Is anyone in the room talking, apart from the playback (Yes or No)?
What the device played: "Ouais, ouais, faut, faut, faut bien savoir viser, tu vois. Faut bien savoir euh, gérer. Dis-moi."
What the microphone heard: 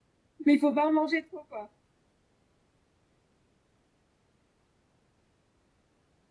Yes